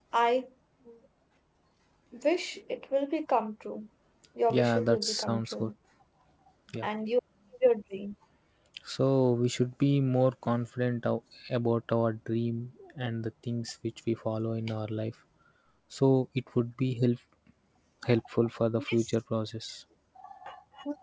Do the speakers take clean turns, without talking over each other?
No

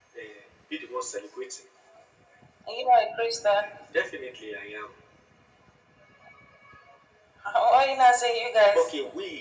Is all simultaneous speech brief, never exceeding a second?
Yes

